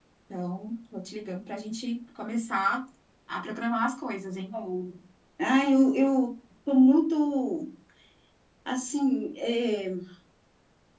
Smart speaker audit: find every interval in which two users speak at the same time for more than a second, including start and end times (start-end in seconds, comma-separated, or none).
none